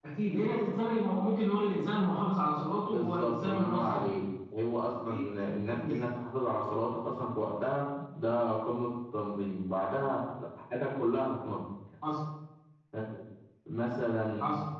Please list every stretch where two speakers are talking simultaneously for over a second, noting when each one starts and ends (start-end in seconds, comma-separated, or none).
2.8-4.2